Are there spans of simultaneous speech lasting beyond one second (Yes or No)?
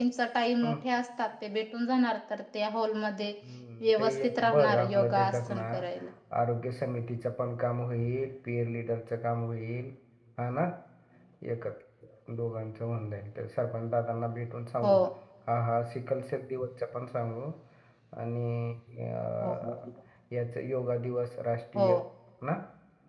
Yes